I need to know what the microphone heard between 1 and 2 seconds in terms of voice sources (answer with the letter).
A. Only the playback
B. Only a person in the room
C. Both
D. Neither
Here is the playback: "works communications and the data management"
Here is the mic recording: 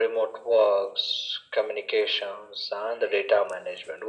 A